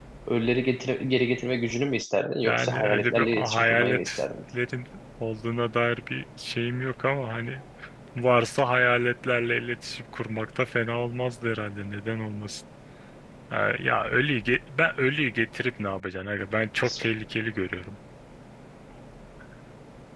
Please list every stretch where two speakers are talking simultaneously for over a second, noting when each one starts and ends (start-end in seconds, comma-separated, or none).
2.4-4.2